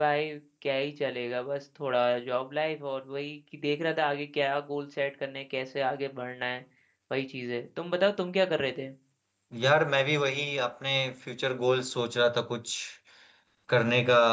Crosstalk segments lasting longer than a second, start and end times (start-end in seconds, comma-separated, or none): none